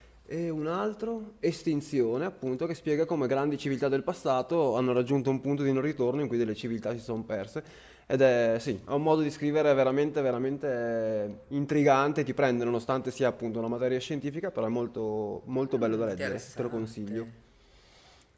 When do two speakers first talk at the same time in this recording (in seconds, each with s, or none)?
15.7 s